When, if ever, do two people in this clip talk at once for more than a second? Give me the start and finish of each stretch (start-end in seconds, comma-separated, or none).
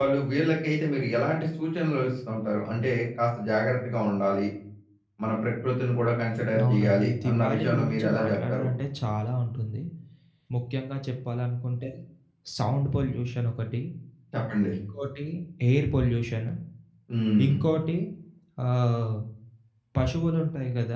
6.6-8.7